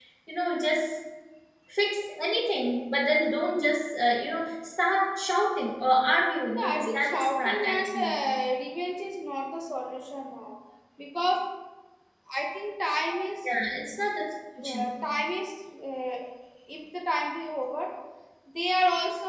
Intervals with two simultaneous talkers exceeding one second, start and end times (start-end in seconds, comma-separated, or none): 6.6-8.2